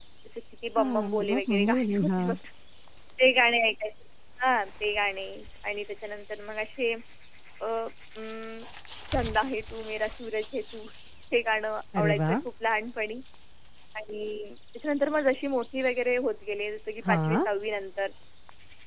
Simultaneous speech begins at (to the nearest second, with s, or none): 1 s